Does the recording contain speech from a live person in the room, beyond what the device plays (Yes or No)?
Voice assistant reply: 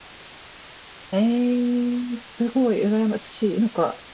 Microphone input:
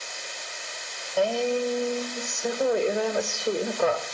No